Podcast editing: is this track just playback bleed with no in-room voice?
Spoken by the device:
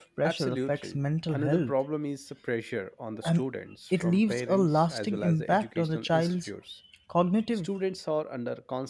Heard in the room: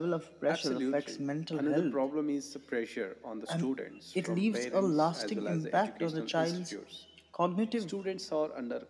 Yes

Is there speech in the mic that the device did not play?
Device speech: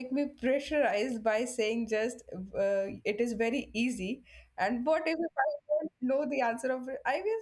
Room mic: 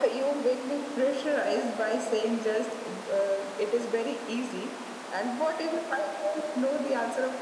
No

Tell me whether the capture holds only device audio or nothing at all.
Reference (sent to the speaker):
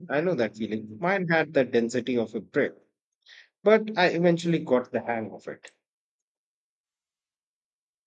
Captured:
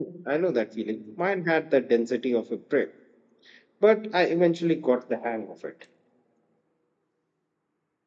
Yes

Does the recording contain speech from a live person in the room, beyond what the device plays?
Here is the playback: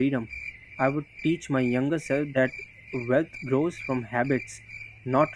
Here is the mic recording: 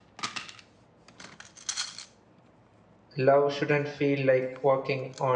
Yes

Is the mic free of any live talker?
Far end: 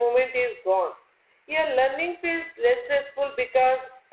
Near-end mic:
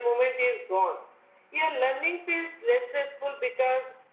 Yes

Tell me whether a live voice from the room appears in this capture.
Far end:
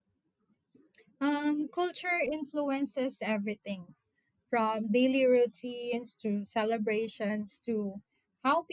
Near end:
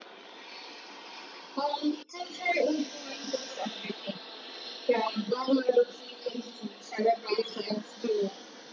No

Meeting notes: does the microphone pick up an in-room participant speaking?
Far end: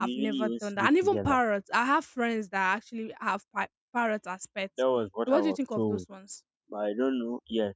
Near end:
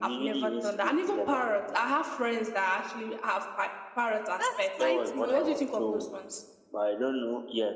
Yes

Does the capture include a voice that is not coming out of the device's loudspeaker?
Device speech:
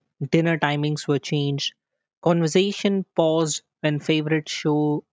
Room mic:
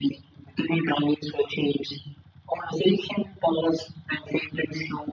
No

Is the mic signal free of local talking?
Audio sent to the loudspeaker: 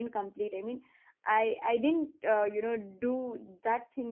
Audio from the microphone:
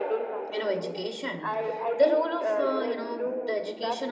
No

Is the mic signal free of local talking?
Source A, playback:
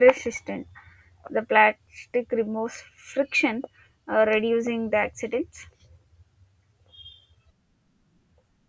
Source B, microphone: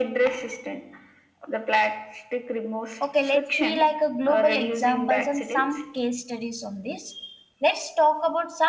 No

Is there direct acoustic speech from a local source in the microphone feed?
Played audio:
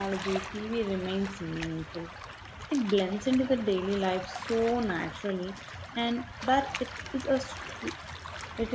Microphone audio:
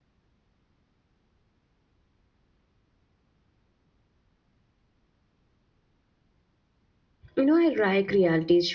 Yes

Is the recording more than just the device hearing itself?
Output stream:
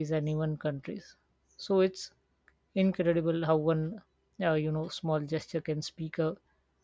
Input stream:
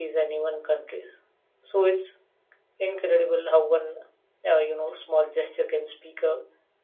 No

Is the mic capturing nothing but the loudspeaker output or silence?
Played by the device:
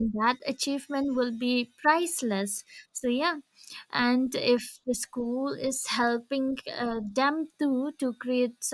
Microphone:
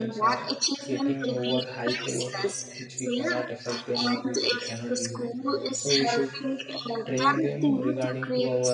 No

